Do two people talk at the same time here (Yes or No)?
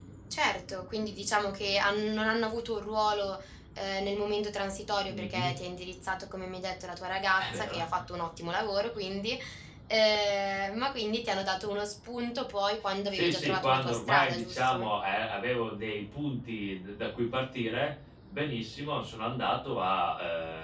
Yes